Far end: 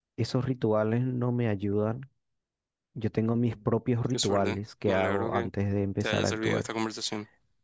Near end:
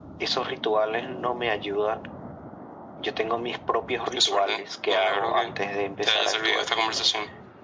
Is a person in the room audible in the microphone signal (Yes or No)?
No